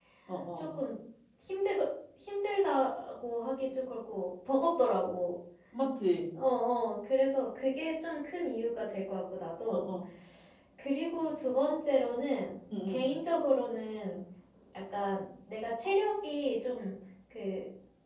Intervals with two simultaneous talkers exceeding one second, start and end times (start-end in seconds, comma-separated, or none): none